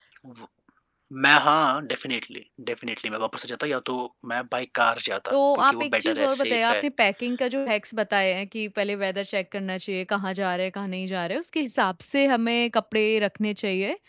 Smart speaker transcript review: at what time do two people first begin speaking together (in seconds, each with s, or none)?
5.3 s